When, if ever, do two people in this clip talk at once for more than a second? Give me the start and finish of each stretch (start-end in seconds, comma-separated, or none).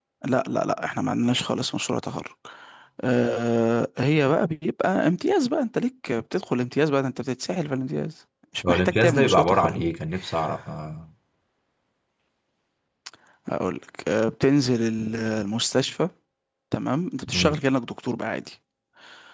8.7-9.9